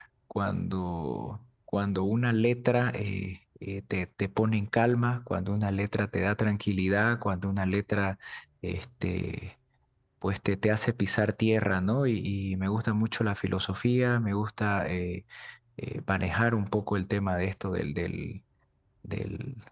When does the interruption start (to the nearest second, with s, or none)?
none